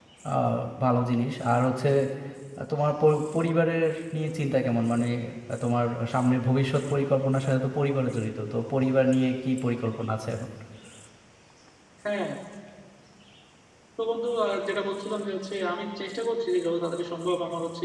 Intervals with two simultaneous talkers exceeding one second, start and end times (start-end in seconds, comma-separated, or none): none